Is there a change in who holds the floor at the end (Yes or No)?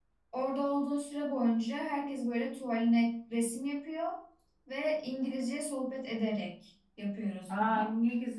Yes